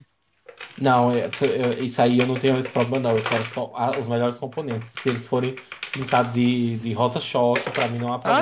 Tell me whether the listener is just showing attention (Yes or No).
No